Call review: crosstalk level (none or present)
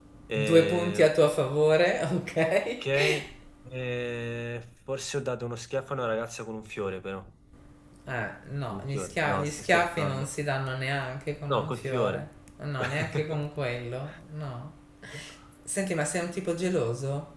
present